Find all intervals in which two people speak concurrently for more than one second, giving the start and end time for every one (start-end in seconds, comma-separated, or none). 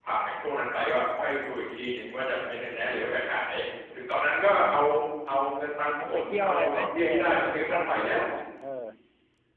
5.8-8.2